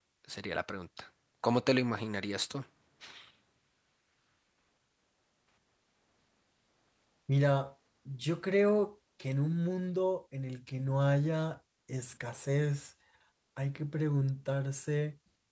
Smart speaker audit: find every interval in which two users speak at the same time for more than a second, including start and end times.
none

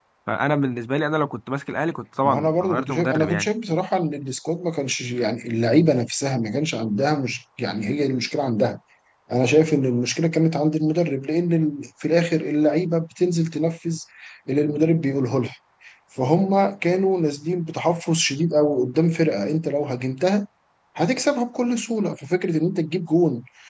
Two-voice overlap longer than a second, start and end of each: 2.2-3.5

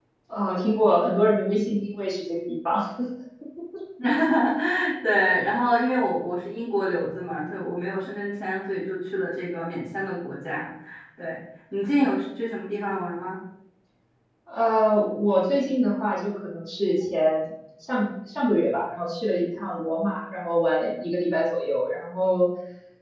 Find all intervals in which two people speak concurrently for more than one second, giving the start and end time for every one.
none

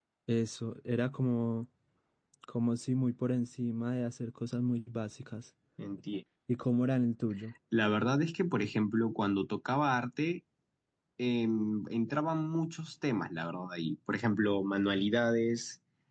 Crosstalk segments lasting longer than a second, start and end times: none

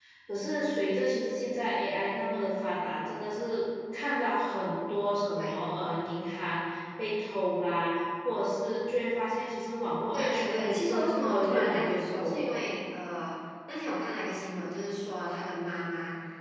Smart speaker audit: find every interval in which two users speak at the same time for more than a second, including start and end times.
10.1-12.6

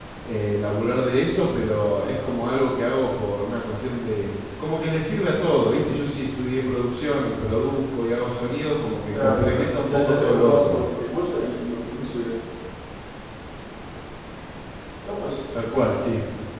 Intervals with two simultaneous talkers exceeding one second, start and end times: 9.1-10.8

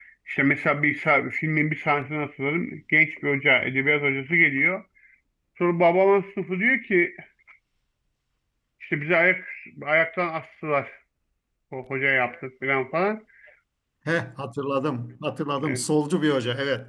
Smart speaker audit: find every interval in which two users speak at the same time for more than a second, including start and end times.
none

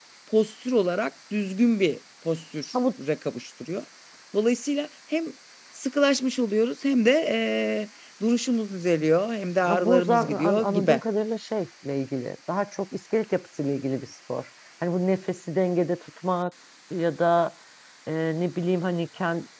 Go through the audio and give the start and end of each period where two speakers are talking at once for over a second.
9.7-11.0

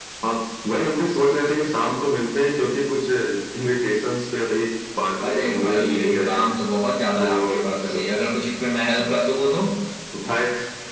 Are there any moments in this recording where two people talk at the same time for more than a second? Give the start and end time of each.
5.2-6.5

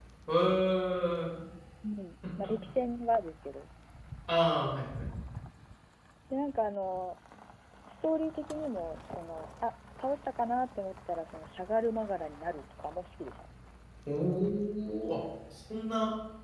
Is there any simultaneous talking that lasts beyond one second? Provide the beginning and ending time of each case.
none

